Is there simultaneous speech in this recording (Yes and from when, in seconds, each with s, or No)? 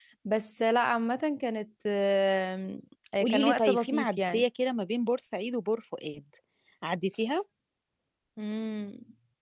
Yes, from 3.2 s